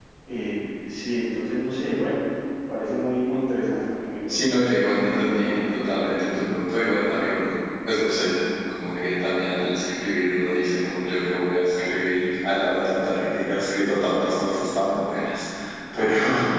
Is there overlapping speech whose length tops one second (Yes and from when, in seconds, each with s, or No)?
Yes, from 4.3 s